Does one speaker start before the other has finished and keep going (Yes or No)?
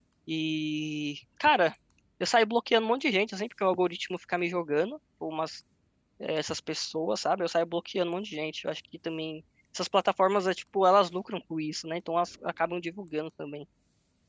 No